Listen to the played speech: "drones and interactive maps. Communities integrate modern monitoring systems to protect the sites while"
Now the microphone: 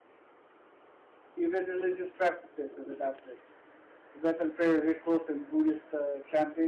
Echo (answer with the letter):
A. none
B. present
A